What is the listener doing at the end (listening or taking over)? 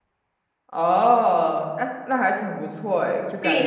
taking over